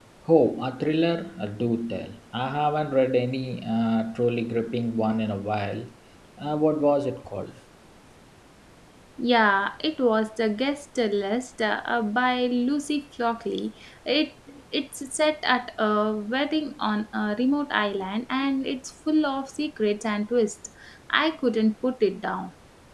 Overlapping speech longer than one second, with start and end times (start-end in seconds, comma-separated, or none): none